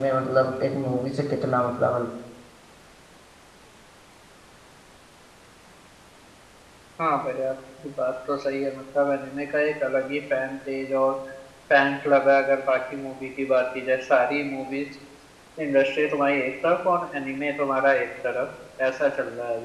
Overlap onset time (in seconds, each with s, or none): none